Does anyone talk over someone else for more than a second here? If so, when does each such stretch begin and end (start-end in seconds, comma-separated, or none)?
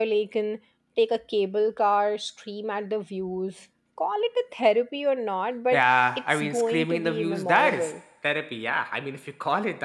6.3-8.0